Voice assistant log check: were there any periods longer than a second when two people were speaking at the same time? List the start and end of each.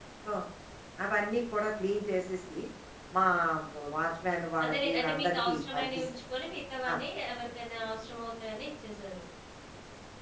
4.6-6.0

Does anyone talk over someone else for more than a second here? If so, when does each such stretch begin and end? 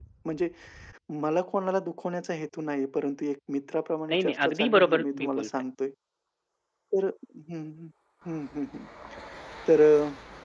4.1-5.5

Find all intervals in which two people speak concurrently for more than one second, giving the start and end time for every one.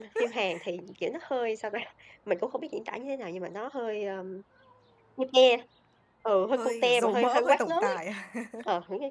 6.5-8.0

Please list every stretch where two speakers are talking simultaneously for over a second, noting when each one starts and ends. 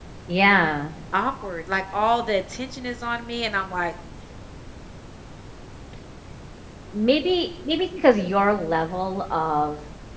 none

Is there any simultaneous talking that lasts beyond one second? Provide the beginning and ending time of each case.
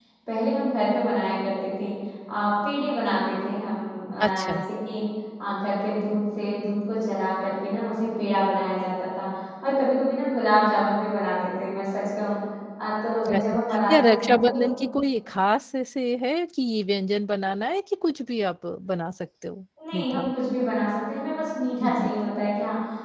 13.3-14.7

